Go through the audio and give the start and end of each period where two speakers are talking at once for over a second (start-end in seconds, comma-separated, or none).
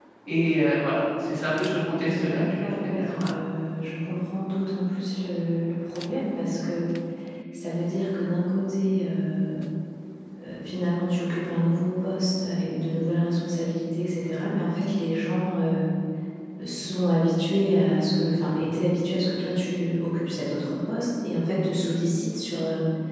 2.0-3.4